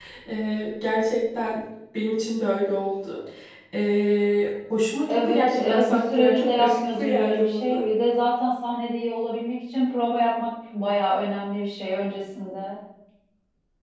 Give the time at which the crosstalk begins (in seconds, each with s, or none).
5.1 s